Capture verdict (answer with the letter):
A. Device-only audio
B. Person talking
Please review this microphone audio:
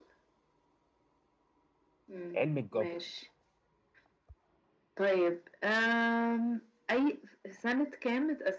B